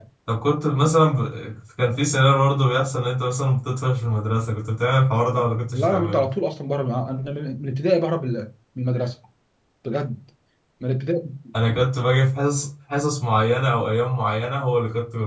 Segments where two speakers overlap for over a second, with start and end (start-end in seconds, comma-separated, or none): none